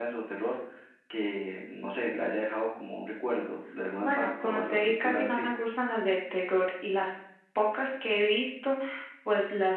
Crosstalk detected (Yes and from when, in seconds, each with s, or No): Yes, from 4.0 s